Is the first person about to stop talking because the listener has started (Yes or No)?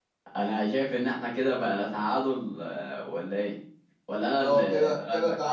Yes